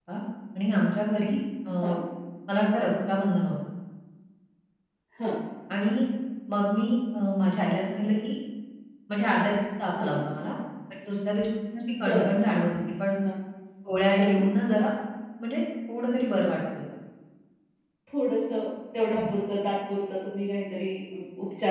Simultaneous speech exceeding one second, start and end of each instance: none

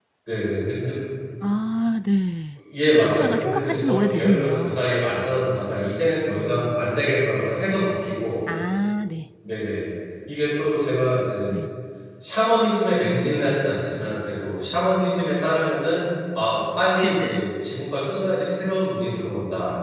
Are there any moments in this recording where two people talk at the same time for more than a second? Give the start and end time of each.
2.9-4.8

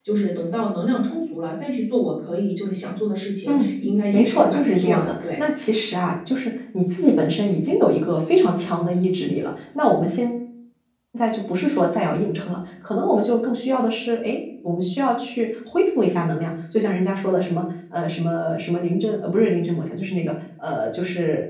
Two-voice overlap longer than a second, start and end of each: 4.1-5.4

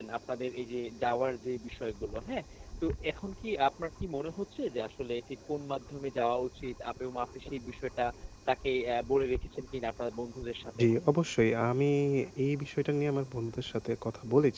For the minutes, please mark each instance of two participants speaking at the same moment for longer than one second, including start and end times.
none

